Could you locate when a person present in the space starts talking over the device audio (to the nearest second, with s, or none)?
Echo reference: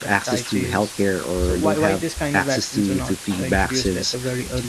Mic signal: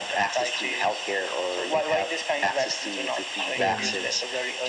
4 s